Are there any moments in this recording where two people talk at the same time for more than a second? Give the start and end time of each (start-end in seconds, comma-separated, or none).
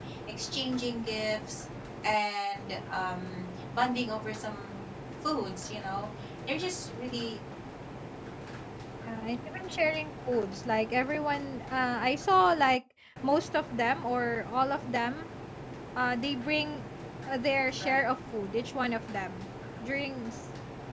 none